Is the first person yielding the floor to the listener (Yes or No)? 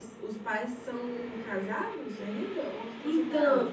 Yes